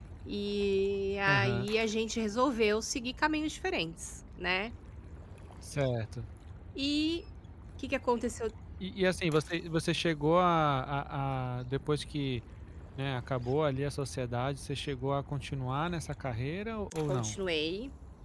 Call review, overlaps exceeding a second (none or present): none